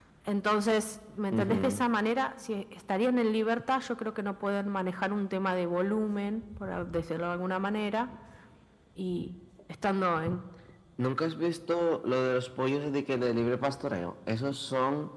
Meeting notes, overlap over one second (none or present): none